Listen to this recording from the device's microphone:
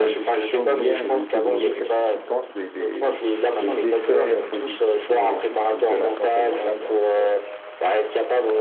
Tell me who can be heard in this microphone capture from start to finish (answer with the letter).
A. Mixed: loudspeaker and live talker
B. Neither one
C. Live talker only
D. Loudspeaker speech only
A